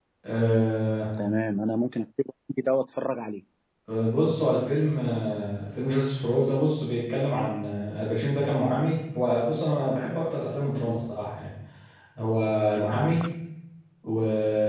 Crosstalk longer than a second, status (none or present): none